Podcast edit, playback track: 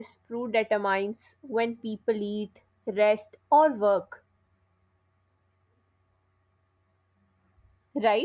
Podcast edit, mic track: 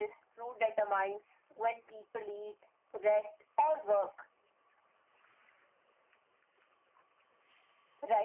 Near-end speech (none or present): none